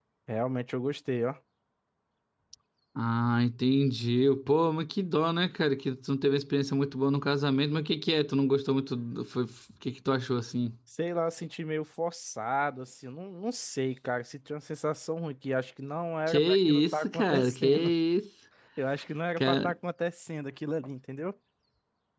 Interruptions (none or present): present